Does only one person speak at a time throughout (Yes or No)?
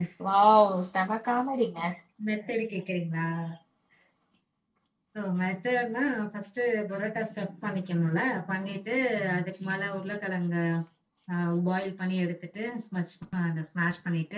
Yes